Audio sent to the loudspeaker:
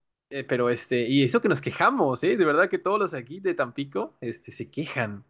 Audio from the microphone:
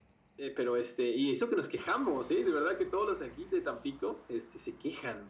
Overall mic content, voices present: echo only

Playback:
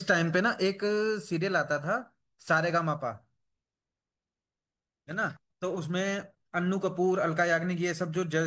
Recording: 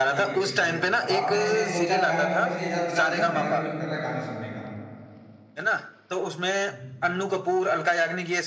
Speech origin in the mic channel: both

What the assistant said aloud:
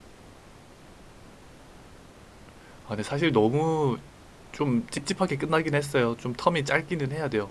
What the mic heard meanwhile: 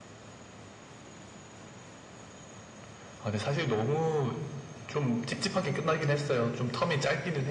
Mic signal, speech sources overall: echo only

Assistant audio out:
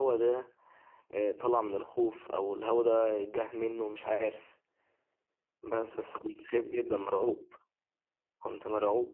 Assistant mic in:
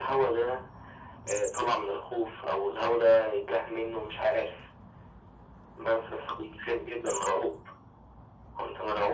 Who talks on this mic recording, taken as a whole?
echo only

